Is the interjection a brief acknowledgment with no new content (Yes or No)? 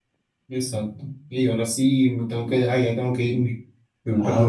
Yes